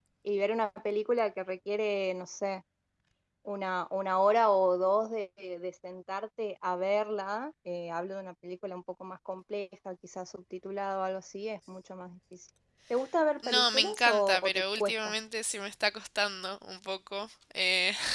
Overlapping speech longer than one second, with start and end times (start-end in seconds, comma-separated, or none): 13.4-15.1